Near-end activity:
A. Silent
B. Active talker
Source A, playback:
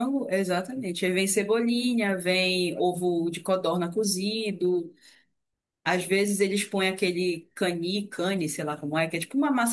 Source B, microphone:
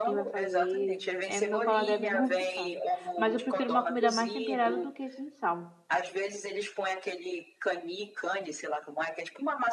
B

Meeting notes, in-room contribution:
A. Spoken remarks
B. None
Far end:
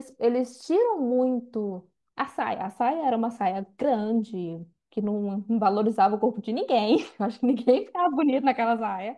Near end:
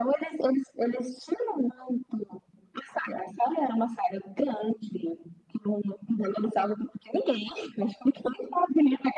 B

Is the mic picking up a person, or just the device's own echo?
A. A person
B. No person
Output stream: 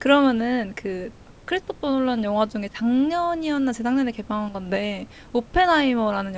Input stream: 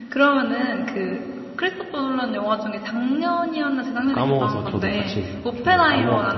A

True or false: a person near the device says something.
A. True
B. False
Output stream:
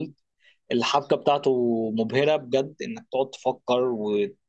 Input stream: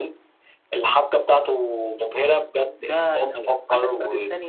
A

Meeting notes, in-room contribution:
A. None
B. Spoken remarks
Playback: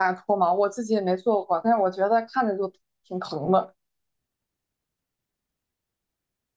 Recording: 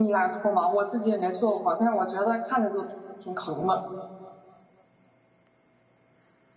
A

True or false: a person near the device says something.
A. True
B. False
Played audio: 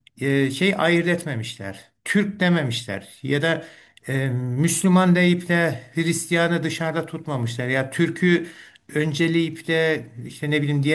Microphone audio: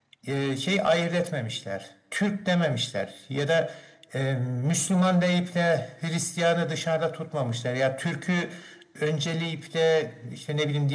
B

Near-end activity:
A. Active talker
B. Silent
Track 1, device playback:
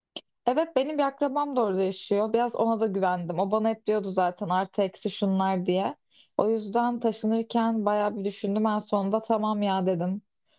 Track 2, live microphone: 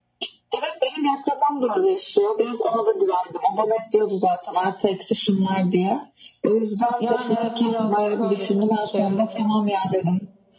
A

